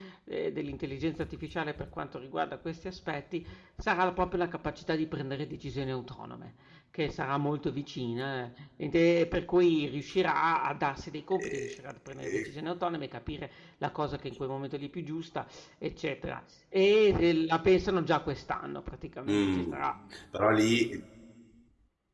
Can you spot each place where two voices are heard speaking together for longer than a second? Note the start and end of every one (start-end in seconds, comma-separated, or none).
none